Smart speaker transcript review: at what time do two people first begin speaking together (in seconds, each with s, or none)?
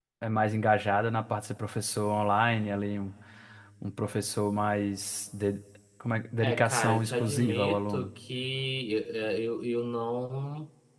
6.4 s